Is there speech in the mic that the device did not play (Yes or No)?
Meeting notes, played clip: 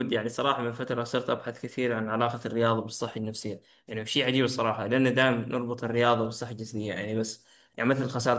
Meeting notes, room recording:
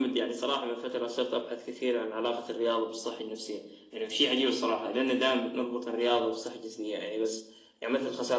No